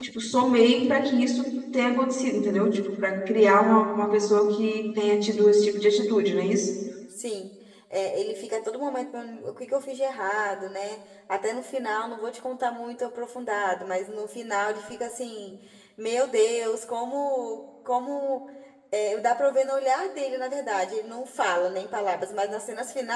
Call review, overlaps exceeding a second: none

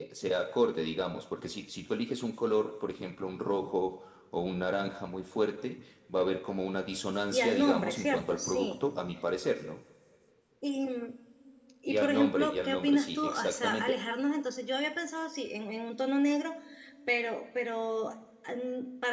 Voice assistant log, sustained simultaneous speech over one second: present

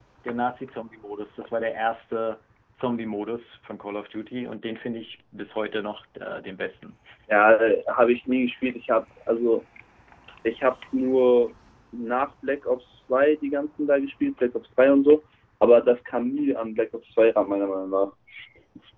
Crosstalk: none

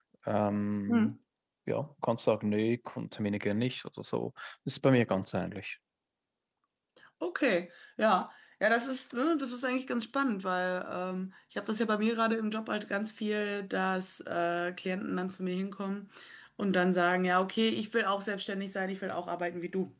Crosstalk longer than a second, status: none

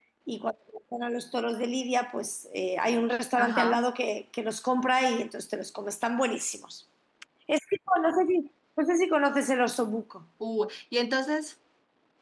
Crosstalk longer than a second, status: none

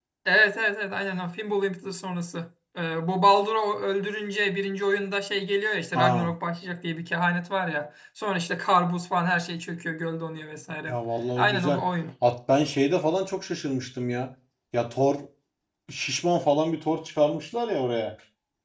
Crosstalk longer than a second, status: none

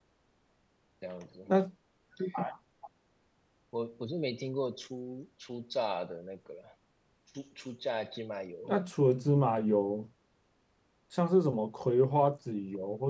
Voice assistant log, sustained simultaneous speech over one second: none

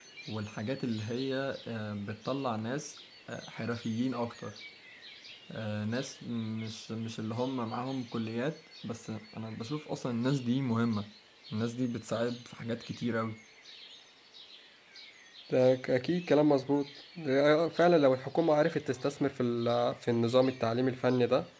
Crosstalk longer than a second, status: none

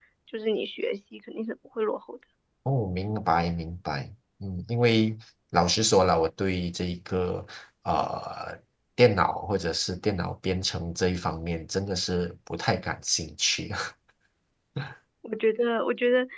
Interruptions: none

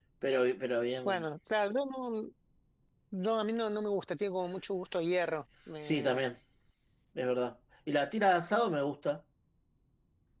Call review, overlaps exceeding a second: none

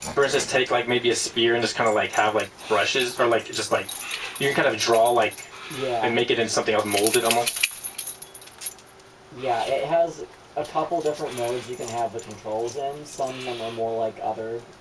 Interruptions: none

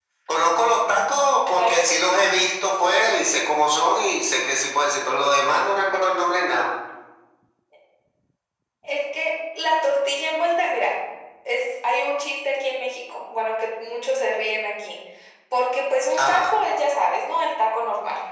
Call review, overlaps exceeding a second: none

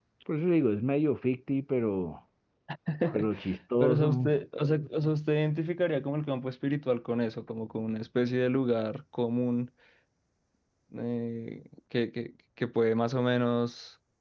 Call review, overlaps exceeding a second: none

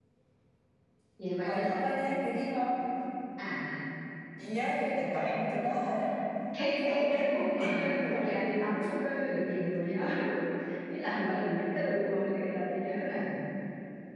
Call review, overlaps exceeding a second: present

